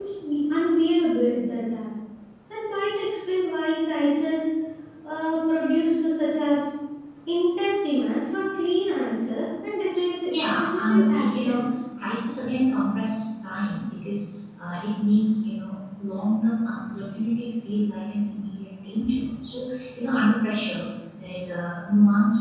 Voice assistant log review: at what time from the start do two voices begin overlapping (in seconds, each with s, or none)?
10.3 s